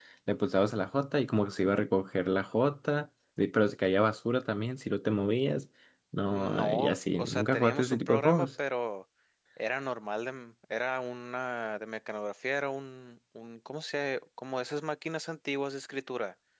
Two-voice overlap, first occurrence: 6.3 s

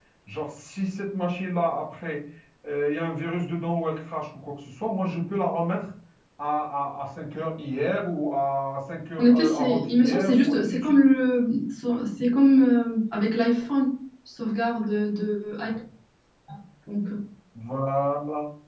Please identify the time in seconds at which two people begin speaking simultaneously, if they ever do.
9.2 s

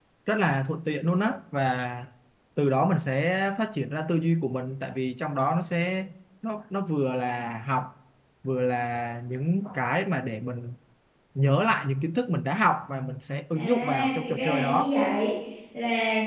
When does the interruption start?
13.6 s

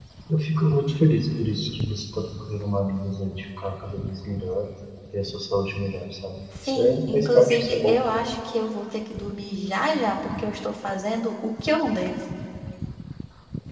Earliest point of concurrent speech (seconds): 6.6 s

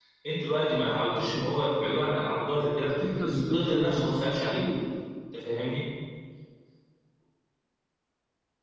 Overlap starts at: 2.9 s

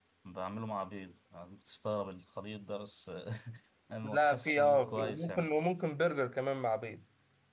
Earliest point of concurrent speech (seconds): 4.0 s

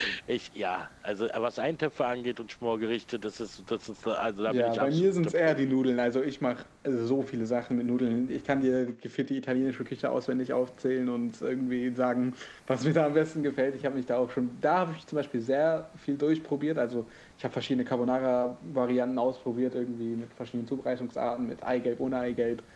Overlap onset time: 4.5 s

